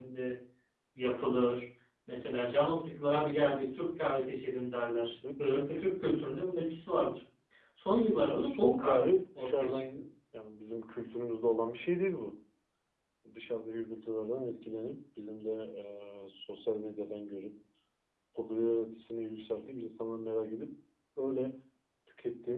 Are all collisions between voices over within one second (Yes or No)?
No